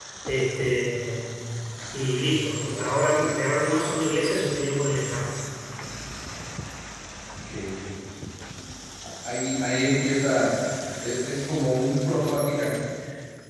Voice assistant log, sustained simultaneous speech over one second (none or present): none